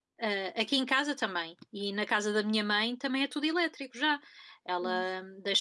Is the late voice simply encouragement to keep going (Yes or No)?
Yes